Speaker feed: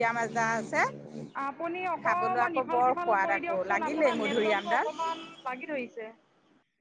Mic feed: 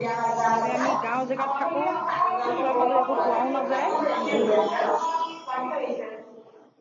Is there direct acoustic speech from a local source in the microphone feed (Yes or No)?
Yes